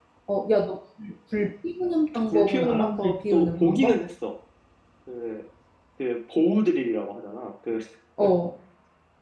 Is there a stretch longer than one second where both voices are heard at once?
Yes, from 2.3 s

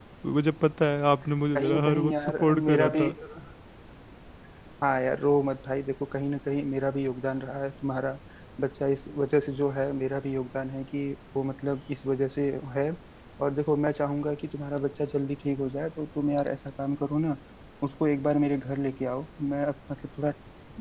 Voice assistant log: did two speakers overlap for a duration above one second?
Yes, from 1.5 s

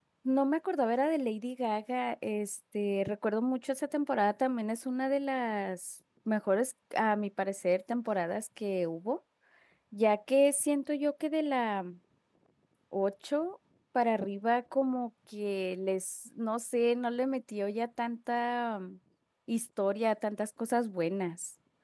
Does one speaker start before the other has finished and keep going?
No

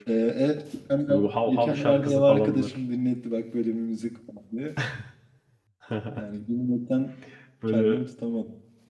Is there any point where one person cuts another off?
Yes, from 1.1 s

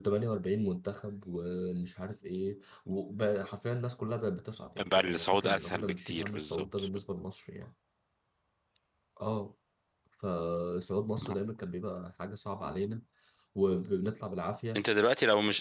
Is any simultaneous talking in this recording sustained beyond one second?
Yes, from 4.8 s

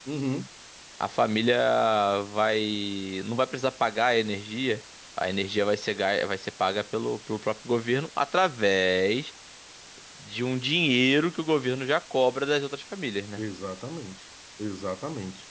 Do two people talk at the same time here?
No

